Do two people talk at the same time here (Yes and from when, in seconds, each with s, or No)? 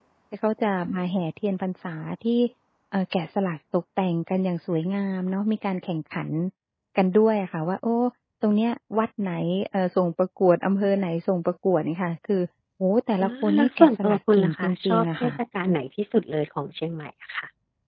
Yes, from 13.2 s